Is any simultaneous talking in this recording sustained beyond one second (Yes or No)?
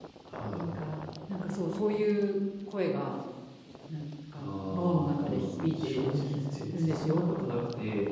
Yes